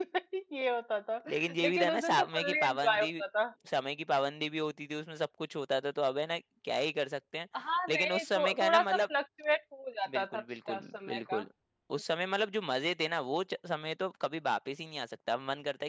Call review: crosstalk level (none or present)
present